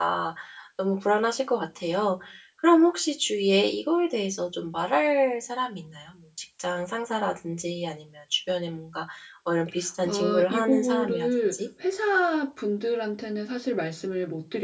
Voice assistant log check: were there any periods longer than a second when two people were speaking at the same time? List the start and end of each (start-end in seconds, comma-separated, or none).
10.1-11.6